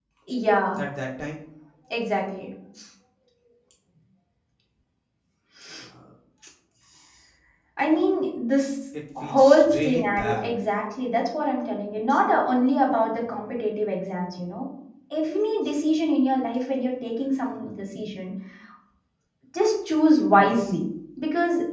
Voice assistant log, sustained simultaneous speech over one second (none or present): present